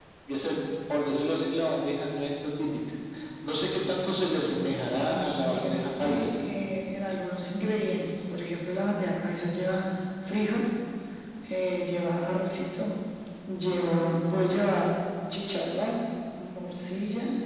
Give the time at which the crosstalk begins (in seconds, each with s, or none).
4.8 s